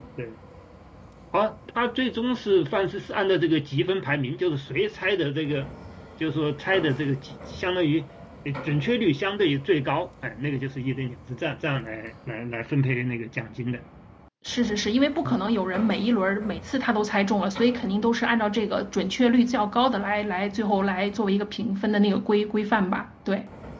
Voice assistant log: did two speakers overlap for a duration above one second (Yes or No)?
No